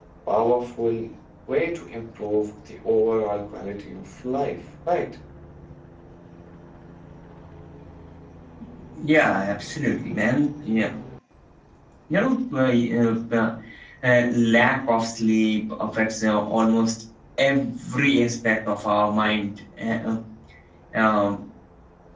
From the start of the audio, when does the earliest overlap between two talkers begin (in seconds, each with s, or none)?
none